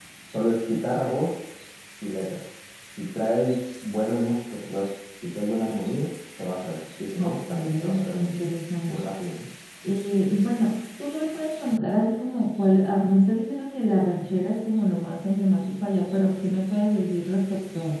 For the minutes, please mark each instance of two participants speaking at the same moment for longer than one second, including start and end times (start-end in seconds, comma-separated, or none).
7.2-8.4